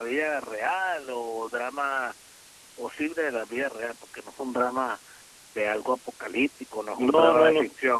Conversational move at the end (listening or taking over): taking over